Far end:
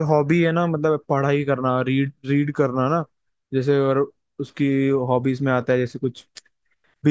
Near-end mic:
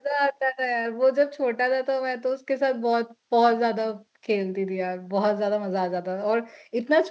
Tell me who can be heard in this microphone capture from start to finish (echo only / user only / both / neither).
user only